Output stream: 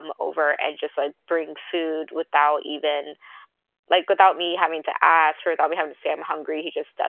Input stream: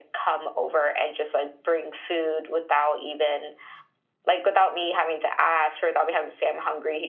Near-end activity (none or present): none